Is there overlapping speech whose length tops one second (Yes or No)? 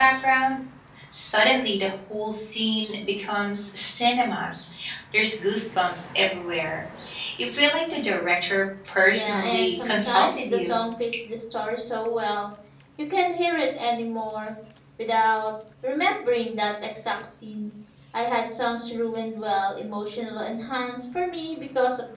Yes